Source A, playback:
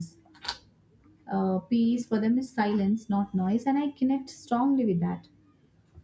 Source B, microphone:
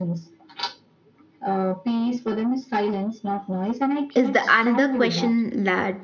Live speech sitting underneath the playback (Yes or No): No